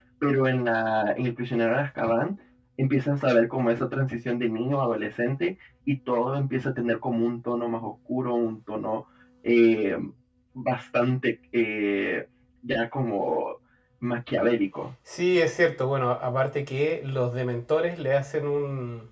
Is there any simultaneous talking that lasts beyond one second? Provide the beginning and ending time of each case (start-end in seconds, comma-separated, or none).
none